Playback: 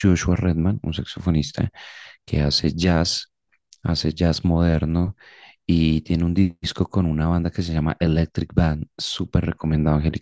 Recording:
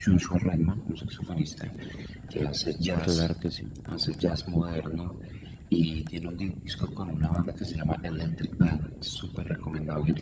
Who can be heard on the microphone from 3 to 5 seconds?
both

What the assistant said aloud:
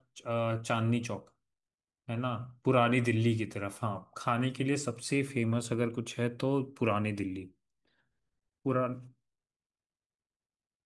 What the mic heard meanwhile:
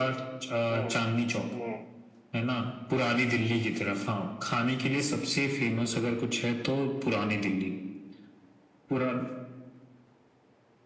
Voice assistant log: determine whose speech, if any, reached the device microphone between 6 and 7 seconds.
echo only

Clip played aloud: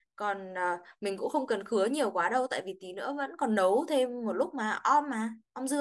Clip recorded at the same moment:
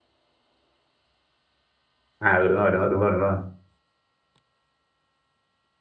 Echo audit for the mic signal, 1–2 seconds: neither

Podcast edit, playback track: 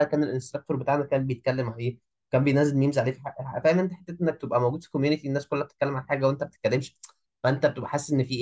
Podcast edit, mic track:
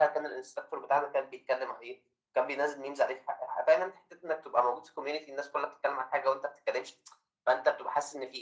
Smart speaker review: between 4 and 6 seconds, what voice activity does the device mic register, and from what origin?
echo only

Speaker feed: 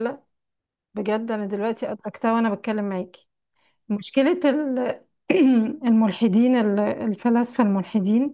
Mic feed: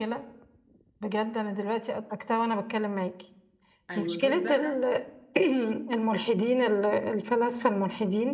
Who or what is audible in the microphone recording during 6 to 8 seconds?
echo only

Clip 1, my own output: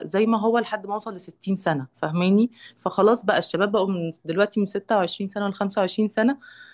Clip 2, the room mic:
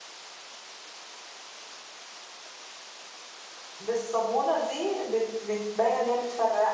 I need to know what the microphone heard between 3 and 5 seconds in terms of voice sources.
user only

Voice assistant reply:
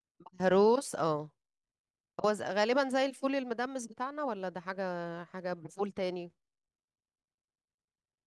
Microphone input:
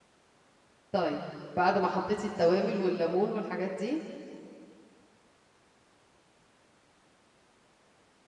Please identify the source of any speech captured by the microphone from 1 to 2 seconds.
user only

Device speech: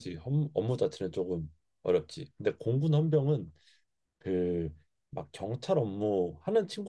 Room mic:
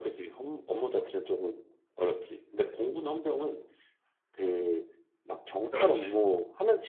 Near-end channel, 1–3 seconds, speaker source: echo only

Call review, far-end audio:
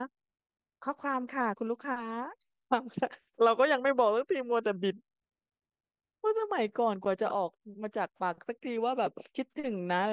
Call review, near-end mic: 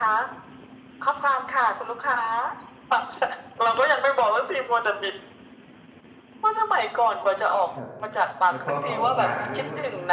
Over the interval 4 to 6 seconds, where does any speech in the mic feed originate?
echo only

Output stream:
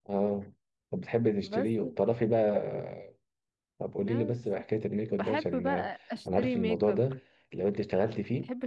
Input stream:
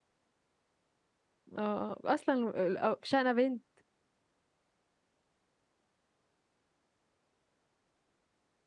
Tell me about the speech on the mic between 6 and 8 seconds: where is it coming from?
neither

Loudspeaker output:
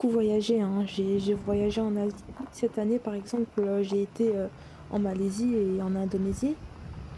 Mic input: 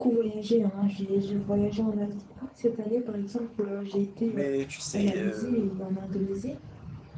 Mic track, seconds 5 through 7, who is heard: both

